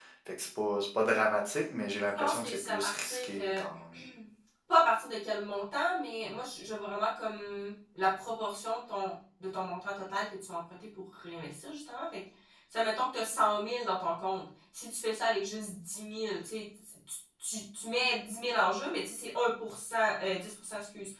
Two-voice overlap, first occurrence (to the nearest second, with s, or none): 2 s